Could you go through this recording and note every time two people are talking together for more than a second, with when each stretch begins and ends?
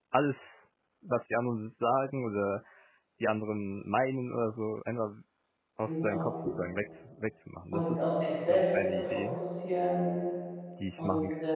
7.7-9.4

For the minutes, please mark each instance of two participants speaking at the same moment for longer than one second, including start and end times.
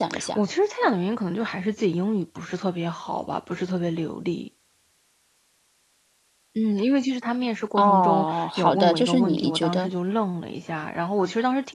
7.8-9.9

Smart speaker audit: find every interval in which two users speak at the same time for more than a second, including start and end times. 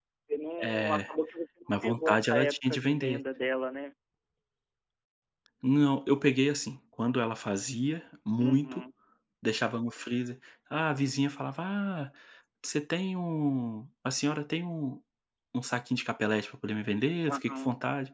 1.7-3.2

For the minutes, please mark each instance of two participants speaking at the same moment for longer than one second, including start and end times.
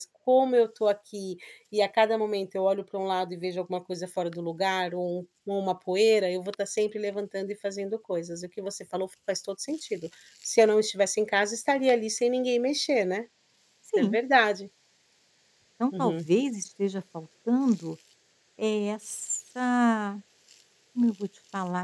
none

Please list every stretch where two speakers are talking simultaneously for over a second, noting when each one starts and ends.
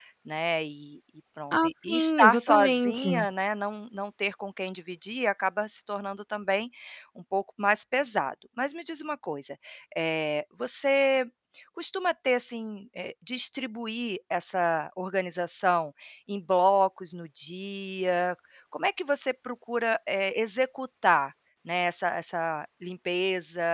1.5-3.1

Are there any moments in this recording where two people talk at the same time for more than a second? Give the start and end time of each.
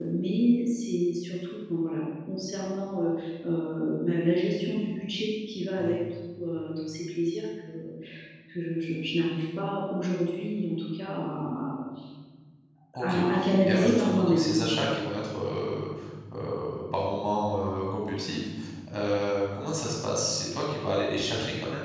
13.0-14.5

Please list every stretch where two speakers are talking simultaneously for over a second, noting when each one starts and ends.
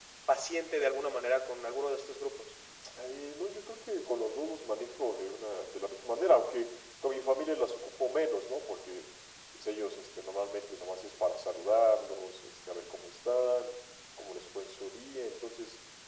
none

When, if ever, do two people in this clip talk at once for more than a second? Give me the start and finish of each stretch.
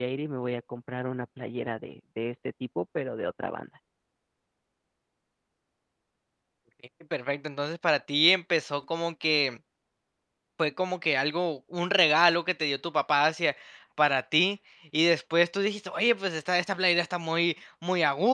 none

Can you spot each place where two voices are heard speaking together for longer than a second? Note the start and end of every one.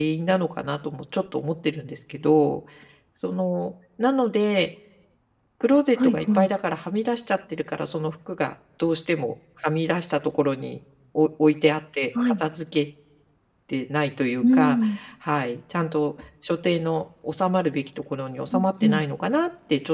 none

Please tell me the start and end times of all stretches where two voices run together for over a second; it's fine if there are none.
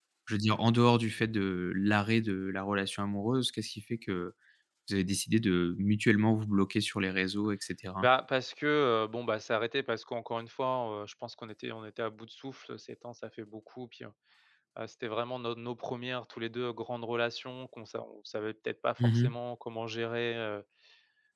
none

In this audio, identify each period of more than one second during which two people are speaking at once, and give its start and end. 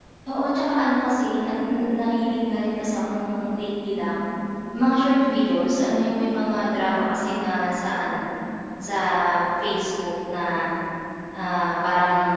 none

